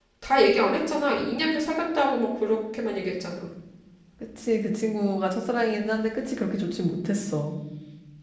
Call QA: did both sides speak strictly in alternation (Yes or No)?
Yes